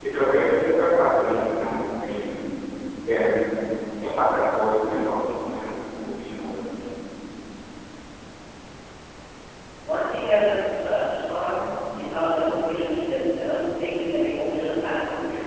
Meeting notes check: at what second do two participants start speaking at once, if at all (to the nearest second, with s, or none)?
none